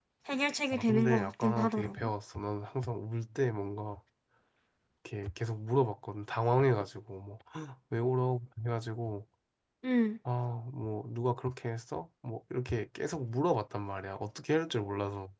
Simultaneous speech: Yes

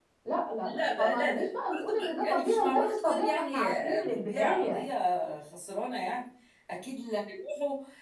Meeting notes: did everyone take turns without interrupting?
No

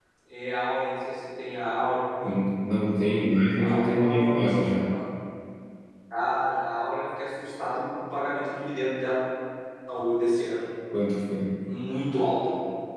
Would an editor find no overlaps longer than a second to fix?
No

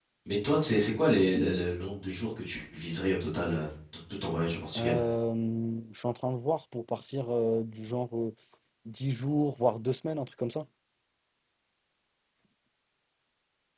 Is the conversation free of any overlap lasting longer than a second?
Yes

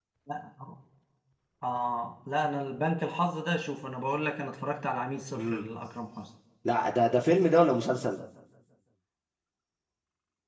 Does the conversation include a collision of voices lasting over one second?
No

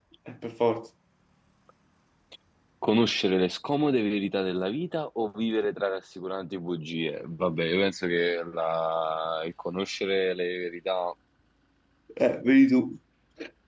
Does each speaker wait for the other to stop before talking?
Yes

